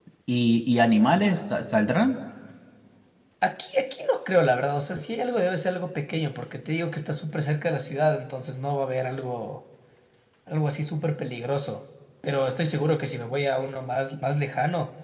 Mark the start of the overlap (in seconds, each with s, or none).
none